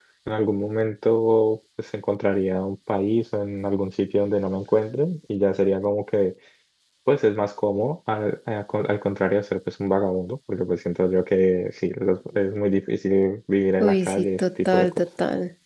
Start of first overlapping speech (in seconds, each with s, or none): 13.8 s